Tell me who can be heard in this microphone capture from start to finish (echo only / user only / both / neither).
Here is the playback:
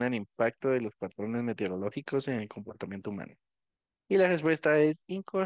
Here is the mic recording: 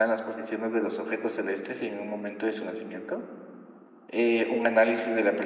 user only